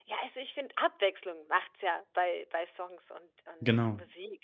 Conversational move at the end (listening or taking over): listening